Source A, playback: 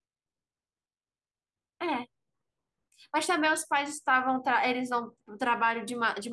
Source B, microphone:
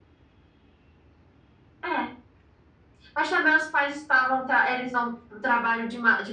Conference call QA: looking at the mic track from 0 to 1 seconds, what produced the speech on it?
neither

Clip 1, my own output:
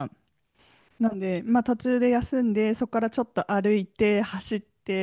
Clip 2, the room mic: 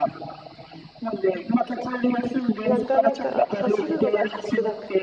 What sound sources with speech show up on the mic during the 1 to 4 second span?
both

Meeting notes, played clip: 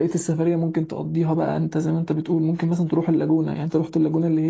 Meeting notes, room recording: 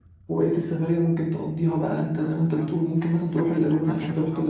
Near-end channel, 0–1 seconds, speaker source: echo only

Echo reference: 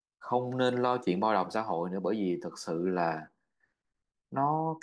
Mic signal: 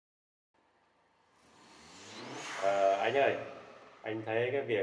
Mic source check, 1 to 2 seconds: neither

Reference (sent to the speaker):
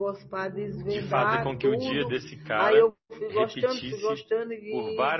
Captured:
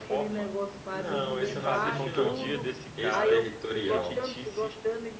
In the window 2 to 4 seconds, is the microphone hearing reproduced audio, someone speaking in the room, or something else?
both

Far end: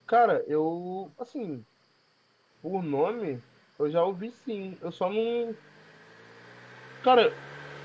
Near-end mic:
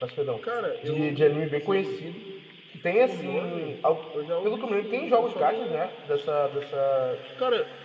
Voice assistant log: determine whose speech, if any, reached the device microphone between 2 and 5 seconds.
both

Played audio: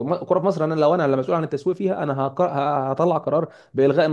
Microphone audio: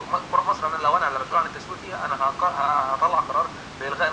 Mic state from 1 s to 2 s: echo only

